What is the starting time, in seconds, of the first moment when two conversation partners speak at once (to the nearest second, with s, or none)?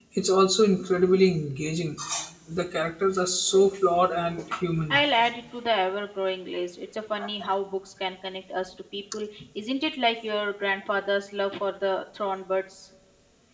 none